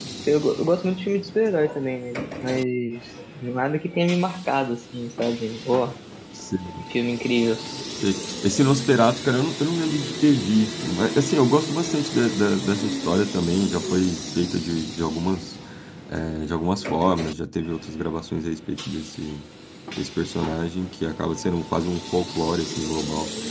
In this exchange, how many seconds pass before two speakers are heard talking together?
none

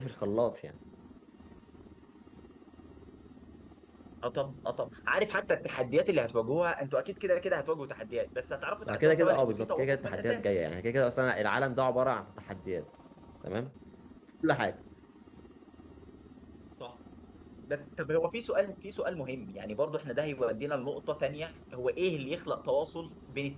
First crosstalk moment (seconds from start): 8.9 s

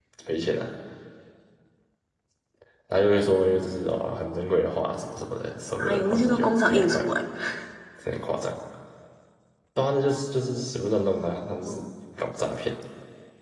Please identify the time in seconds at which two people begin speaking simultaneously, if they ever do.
5.8 s

